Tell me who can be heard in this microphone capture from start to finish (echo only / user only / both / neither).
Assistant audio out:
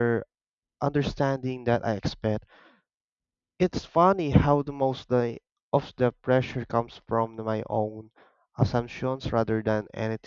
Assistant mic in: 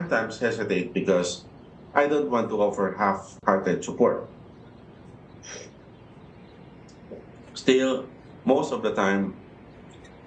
user only